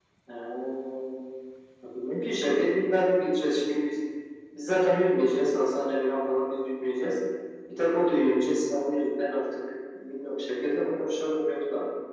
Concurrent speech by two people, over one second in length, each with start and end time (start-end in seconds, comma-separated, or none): none